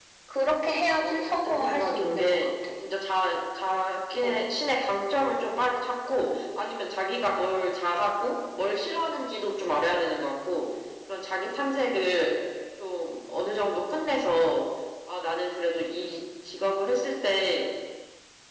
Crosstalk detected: Yes, from 0.6 s

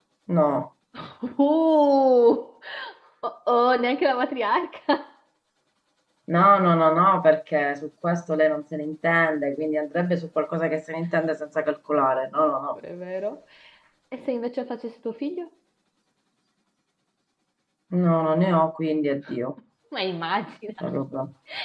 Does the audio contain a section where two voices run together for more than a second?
No

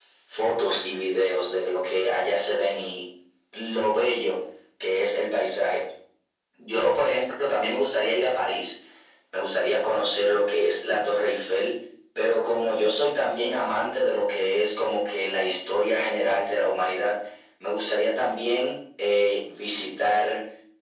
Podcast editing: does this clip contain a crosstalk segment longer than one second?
No

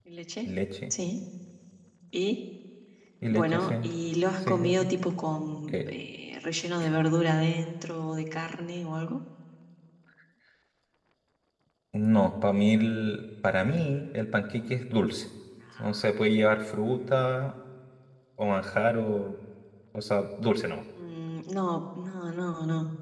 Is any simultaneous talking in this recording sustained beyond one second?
No

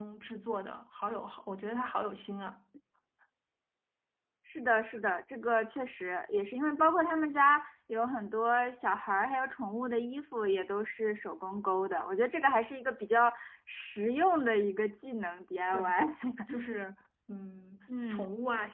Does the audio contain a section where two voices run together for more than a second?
No

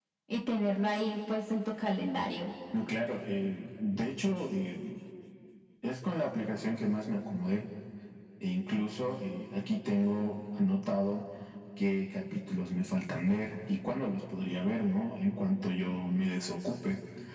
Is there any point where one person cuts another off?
No

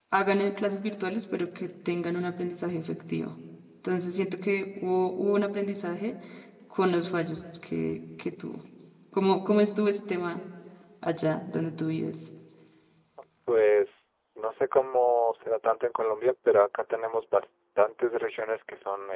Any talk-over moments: No

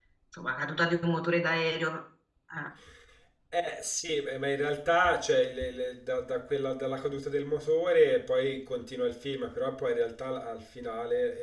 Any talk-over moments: No

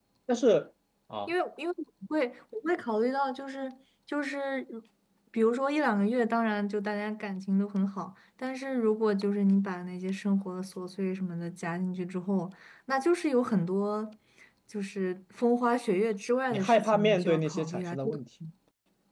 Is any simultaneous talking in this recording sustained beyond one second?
Yes, from 16.5 s

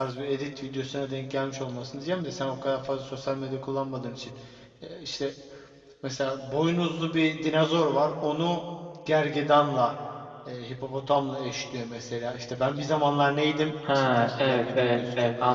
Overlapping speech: Yes, from 13.8 s

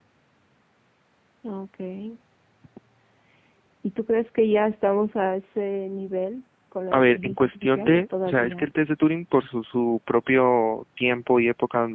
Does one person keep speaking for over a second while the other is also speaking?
Yes, from 6.9 s

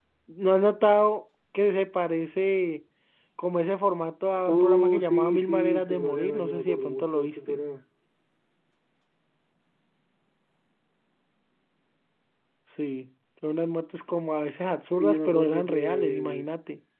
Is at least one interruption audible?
Yes, from 4.5 s

